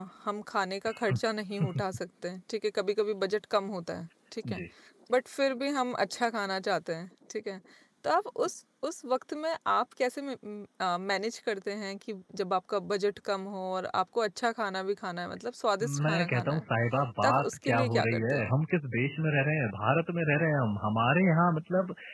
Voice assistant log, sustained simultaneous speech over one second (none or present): present